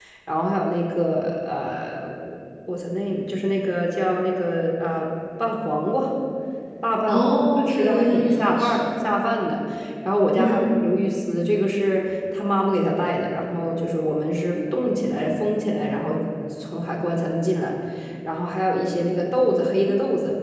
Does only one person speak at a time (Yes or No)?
No